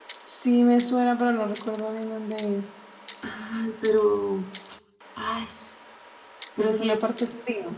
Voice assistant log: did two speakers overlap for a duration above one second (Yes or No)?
No